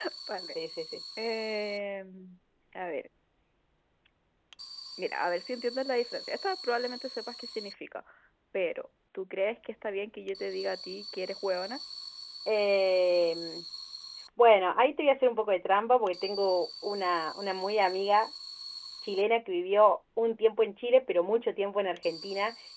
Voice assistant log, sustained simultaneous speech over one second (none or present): none